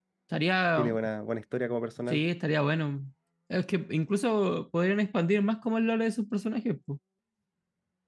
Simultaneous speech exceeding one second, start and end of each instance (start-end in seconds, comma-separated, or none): none